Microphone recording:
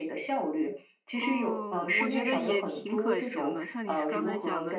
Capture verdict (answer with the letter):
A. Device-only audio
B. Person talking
B